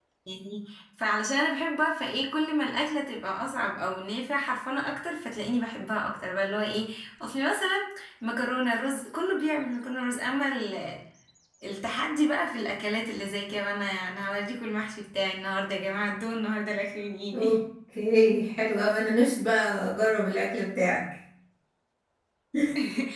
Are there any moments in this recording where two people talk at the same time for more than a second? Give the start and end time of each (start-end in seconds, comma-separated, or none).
none